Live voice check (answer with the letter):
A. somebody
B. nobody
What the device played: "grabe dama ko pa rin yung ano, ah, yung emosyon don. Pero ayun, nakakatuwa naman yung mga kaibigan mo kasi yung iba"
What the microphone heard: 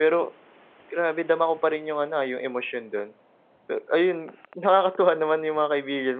B